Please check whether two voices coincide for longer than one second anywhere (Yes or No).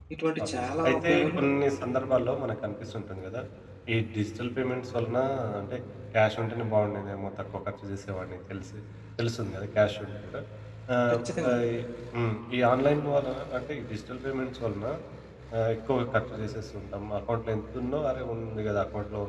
No